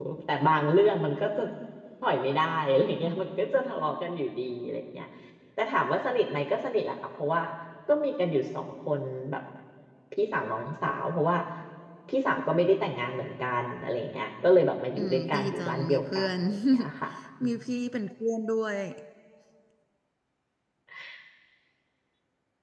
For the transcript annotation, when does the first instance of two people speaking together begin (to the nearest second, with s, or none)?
15 s